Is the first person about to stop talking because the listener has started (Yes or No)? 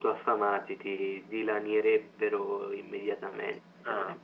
Yes